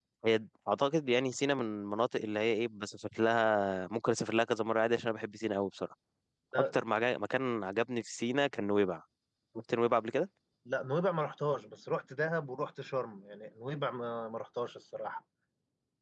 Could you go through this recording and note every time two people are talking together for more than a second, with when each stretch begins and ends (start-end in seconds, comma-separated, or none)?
none